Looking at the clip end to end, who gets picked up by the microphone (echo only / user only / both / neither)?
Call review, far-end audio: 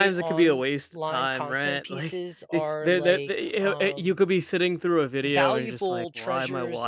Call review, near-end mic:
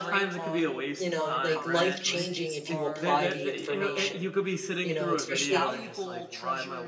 both